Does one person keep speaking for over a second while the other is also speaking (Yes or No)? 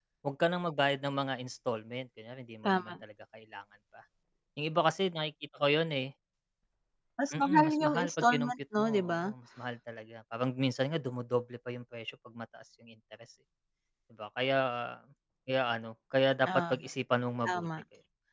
Yes